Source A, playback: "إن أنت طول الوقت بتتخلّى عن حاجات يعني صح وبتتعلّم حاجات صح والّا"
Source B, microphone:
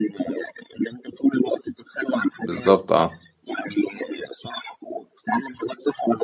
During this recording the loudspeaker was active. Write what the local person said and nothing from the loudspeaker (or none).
بالضبط آه.